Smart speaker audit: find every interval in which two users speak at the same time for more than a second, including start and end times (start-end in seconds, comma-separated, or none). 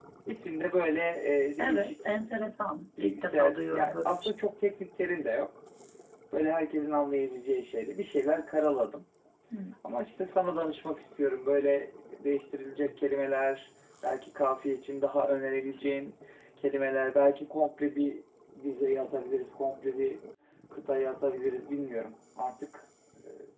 3.0-4.3